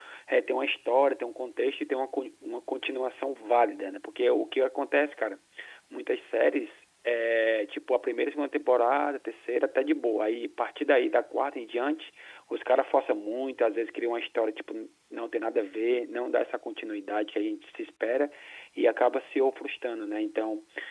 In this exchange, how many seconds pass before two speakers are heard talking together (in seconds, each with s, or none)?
none